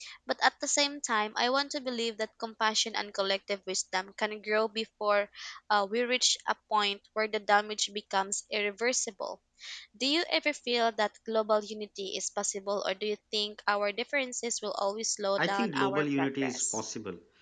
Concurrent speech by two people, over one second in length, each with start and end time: 15.5-16.8

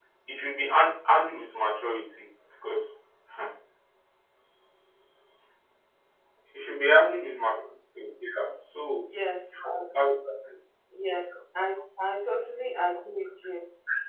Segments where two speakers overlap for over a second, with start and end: none

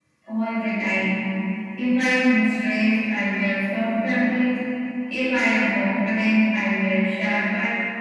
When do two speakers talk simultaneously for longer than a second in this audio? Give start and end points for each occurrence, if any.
none

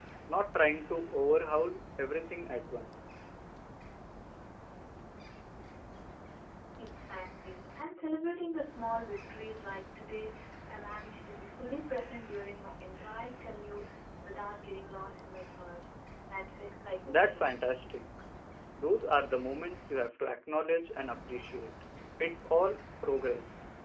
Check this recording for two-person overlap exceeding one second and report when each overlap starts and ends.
none

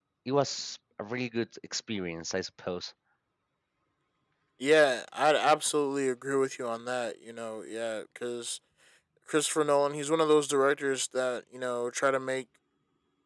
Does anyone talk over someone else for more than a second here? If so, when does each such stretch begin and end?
none

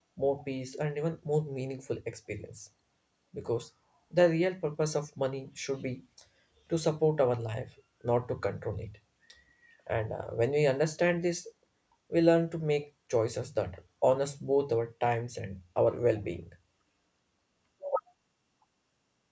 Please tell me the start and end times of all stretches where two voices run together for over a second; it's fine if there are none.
none

